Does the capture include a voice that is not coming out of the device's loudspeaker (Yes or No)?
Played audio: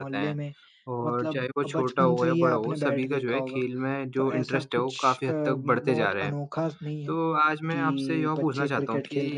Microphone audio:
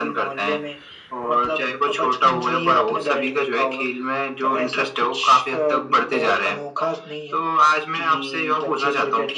No